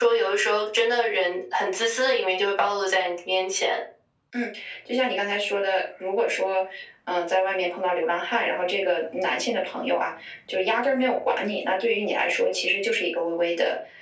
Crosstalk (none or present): none